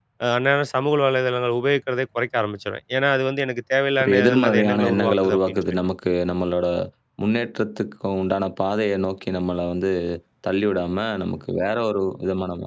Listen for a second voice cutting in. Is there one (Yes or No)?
Yes